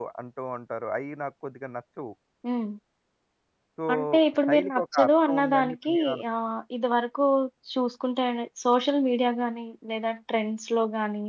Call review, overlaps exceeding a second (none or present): present